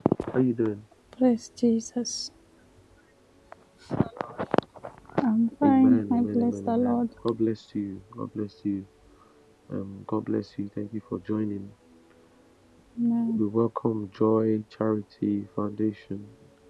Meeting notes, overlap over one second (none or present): present